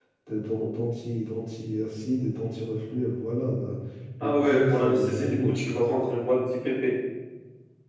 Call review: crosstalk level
present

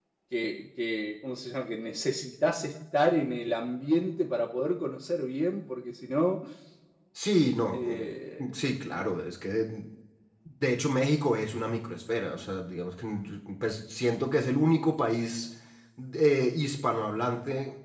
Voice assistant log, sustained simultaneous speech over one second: none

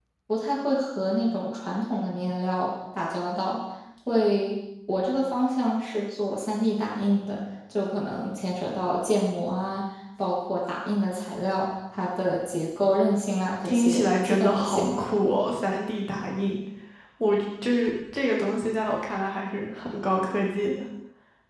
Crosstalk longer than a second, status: present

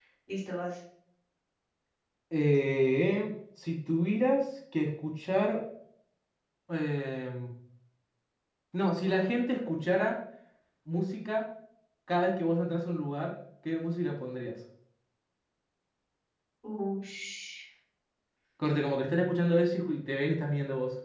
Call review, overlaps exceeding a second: none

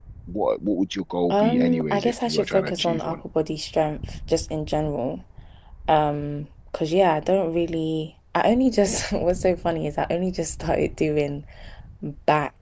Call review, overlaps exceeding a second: present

